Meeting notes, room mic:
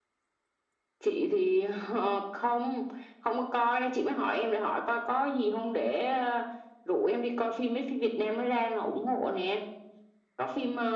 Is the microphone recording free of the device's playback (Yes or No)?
No